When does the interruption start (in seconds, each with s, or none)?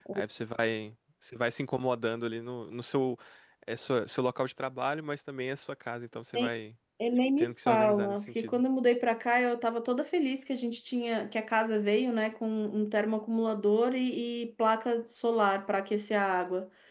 7.4 s